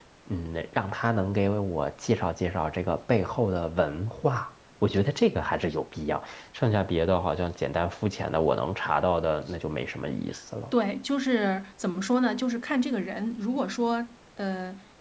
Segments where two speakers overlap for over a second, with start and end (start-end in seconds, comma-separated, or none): none